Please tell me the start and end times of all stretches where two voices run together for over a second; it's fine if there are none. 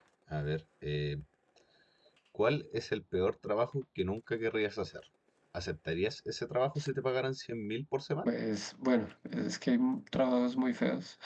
none

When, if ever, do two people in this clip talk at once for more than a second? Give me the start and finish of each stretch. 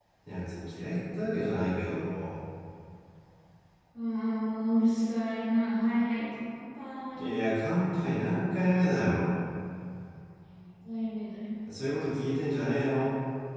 none

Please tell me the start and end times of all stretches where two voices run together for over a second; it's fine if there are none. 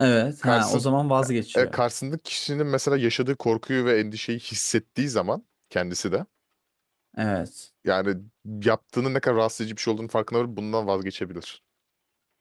none

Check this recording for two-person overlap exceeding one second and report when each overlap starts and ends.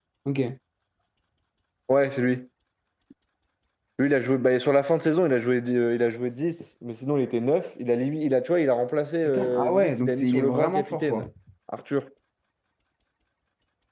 9.2-11.3

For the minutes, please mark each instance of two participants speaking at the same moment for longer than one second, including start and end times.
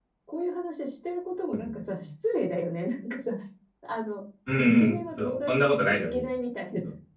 4.6-6.3

